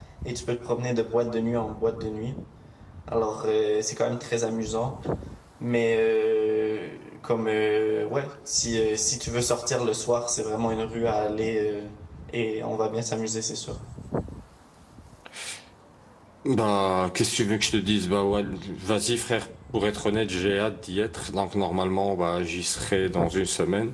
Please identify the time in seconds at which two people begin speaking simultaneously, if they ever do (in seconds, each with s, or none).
none